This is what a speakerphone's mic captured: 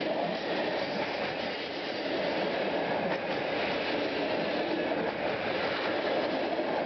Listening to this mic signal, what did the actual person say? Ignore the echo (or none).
none